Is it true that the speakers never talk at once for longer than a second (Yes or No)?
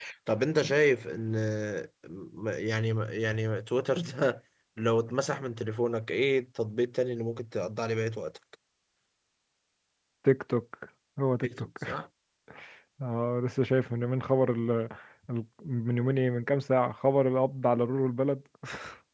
Yes